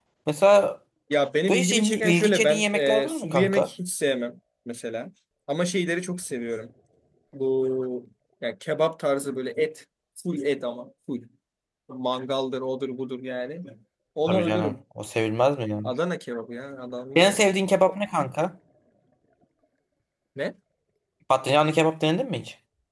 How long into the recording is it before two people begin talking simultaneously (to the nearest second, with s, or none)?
1 s